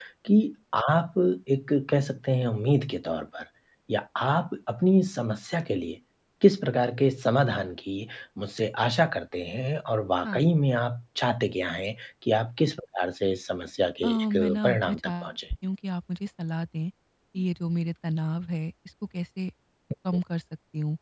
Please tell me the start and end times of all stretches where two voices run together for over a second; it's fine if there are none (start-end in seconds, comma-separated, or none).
14.0-15.3